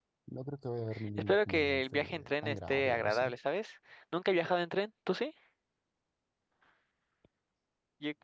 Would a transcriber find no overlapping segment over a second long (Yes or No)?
No